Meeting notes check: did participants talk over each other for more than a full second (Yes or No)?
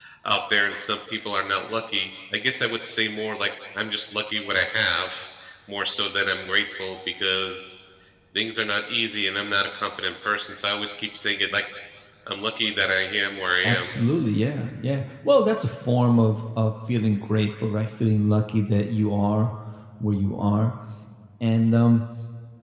No